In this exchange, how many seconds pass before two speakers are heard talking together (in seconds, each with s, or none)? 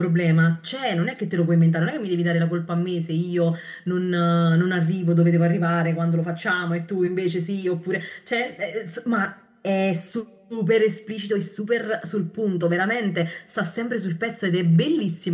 none